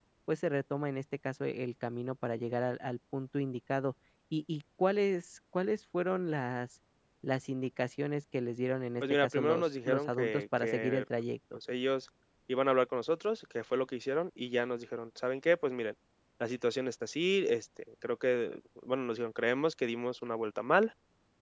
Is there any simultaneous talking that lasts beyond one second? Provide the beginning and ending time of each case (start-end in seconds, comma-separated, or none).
9.0-11.0